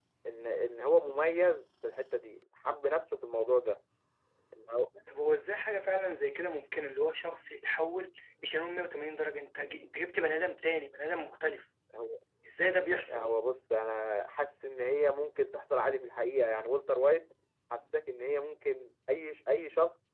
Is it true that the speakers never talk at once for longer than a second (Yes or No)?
Yes